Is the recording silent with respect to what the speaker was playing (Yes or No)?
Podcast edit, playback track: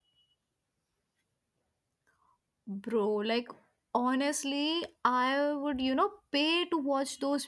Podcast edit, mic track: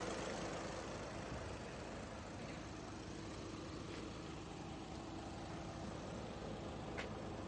Yes